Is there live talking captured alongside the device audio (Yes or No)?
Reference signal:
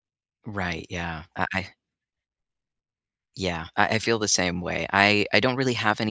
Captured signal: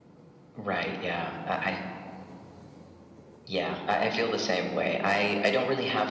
No